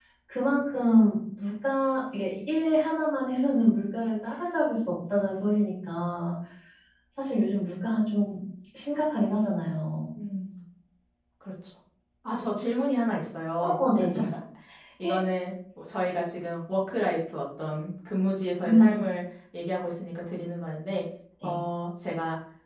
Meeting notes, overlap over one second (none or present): none